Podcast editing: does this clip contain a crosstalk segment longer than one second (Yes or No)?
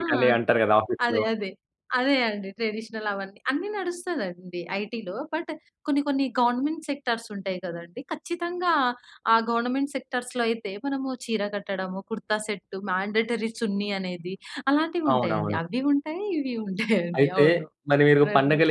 No